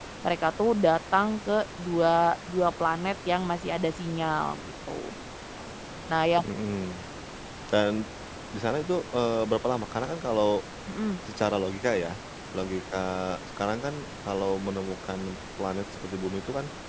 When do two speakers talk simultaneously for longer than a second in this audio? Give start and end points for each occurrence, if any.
none

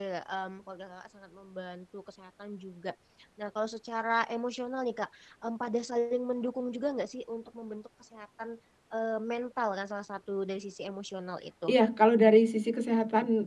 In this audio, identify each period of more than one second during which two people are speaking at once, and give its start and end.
none

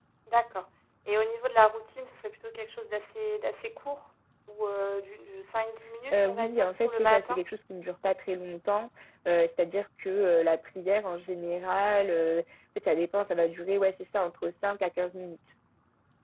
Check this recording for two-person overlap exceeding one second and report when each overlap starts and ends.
6.1-7.4

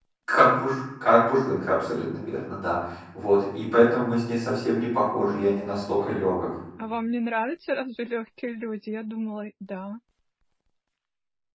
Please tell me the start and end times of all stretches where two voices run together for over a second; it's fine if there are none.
none

